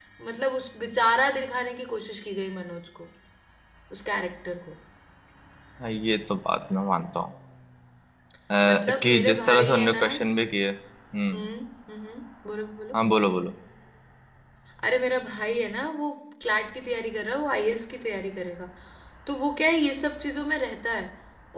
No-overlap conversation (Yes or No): No